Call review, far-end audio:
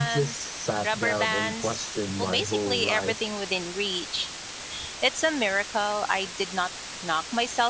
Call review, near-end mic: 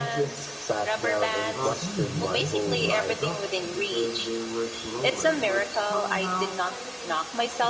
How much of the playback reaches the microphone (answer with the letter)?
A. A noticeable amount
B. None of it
A